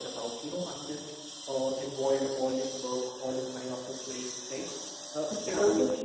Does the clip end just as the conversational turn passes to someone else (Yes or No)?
No